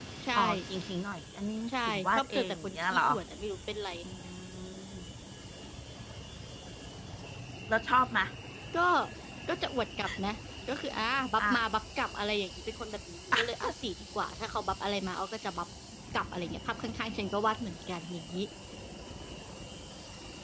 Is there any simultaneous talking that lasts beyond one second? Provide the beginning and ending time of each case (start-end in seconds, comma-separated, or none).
1.7-3.0